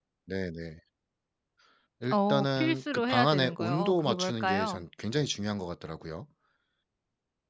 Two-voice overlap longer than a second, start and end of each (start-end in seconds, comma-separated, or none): 2.1-4.8